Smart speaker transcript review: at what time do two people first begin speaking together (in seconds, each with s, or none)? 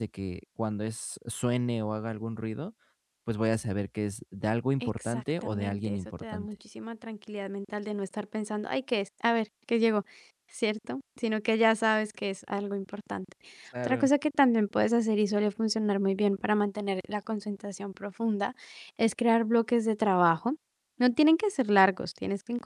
4.8 s